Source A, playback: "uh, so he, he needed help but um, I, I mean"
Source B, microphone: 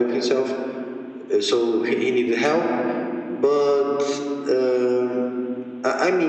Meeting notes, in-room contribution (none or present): none